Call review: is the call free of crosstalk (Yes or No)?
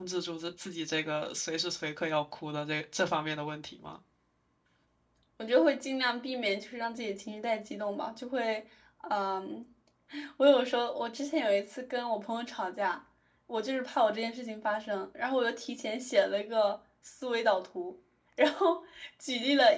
Yes